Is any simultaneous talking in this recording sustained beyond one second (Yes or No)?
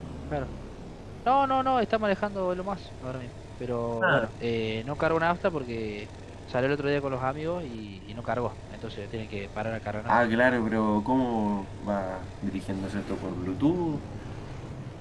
No